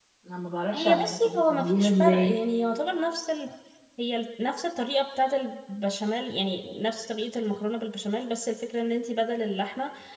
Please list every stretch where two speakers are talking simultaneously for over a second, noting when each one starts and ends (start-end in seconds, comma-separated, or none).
0.7-2.4